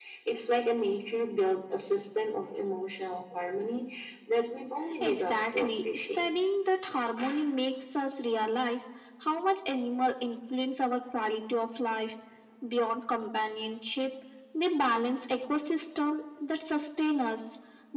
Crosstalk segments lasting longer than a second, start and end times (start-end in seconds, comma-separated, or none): 5.0-6.3